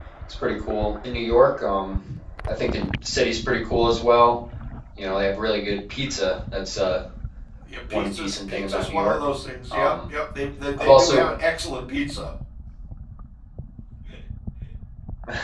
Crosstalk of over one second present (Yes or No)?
Yes